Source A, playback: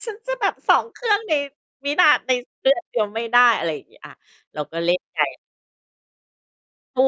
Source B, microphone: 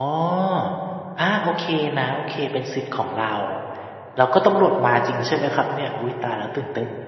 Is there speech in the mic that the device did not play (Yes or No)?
Yes